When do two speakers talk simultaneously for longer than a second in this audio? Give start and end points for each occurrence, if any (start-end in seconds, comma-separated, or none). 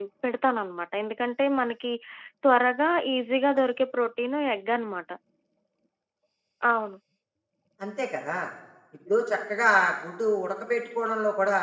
none